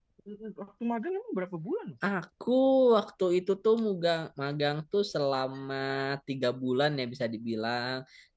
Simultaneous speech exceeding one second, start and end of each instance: none

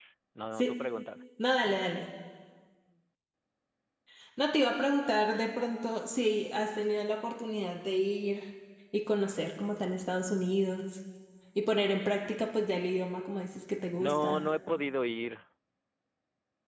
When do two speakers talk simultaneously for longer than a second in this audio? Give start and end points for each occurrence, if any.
none

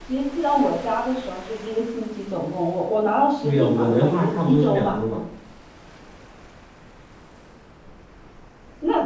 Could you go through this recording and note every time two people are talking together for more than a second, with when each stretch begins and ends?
3.4-5.0

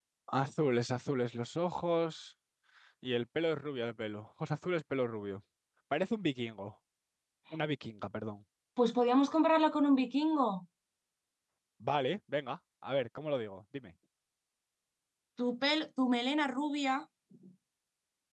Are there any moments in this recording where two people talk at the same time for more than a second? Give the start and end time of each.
none

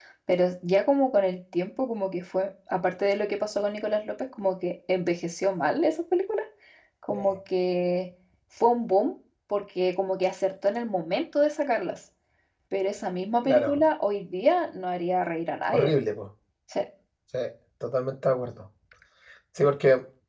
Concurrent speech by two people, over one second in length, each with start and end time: none

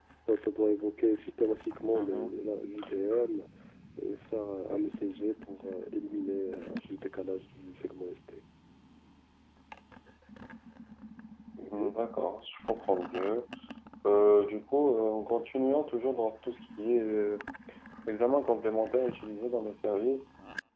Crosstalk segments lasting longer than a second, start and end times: none

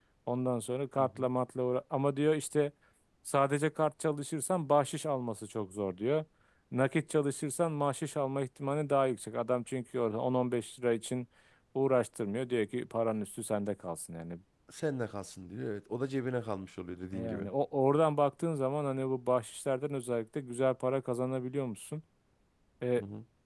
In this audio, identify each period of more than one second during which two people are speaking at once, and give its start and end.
none

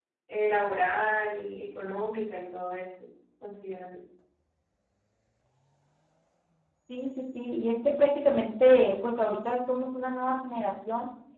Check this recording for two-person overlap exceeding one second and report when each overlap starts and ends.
none

